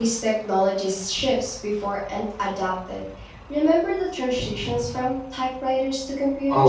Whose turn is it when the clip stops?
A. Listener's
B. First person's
A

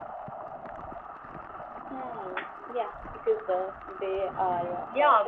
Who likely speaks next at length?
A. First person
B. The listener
B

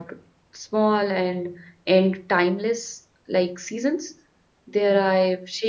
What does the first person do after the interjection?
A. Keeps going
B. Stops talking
A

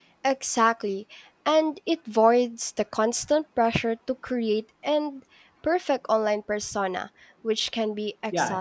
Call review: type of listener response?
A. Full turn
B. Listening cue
A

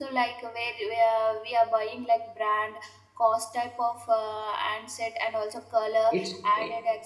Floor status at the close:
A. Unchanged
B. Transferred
A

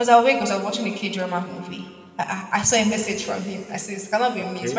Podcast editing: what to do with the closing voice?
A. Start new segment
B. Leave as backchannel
B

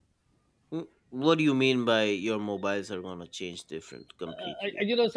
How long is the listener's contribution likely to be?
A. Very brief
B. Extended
B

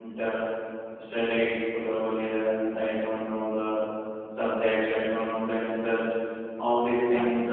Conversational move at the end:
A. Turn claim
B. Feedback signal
B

